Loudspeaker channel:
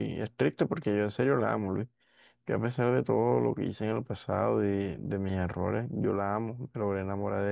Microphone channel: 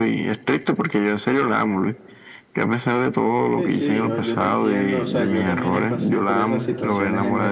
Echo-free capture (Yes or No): No